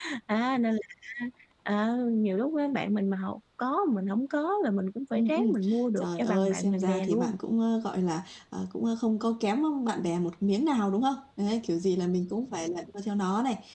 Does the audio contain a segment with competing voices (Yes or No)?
Yes